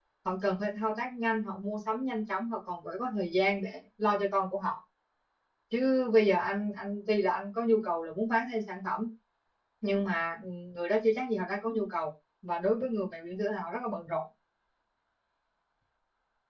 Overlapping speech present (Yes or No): No